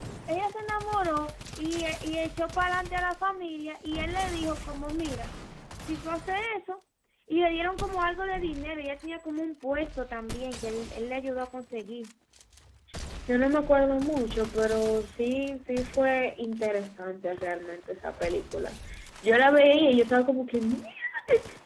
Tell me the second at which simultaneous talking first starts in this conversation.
none

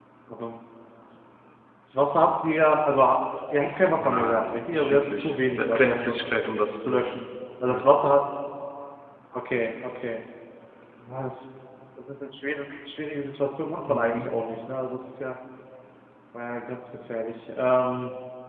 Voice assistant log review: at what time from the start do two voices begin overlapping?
4.0 s

